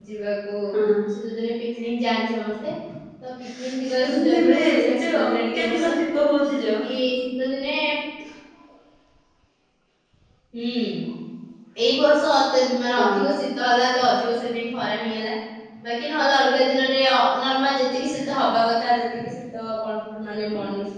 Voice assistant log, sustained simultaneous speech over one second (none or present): present